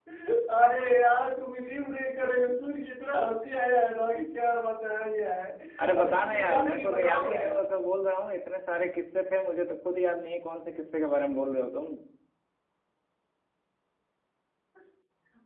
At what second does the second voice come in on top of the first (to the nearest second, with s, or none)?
6 s